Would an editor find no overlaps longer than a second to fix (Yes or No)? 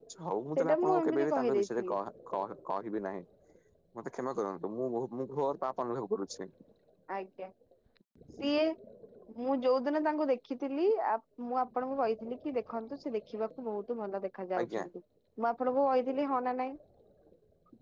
No